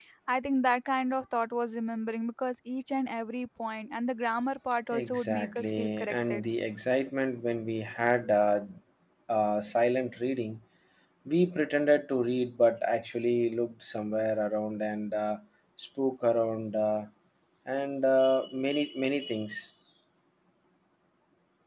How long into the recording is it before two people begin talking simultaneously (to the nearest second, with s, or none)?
5 s